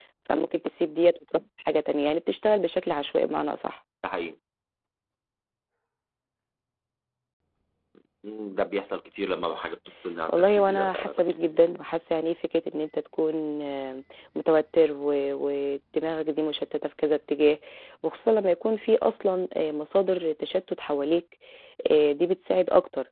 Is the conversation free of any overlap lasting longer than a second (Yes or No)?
No